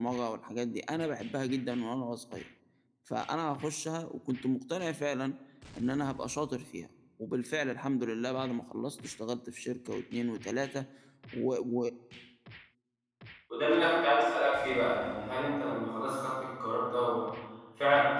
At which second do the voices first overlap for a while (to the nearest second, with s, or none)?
none